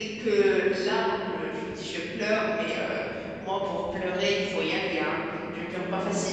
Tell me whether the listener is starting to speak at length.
No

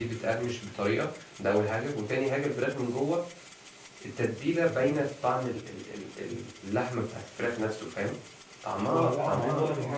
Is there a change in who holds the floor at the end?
Yes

